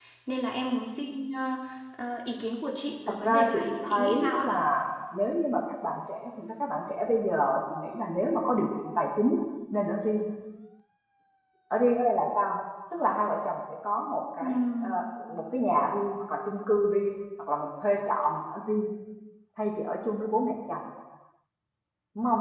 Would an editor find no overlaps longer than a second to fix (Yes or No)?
No